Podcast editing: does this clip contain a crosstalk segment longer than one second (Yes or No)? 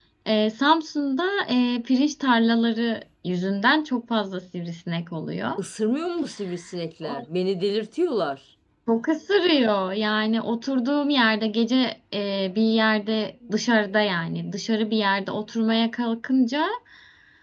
No